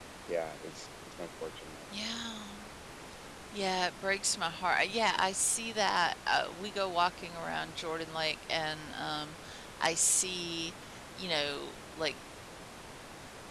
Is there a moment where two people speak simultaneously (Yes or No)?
No